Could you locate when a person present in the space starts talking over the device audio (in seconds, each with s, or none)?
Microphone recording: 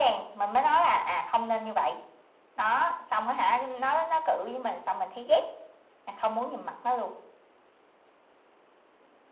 none